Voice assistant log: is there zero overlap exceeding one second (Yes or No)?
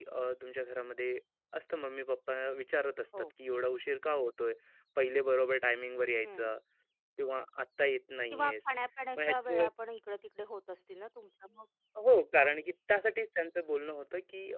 Yes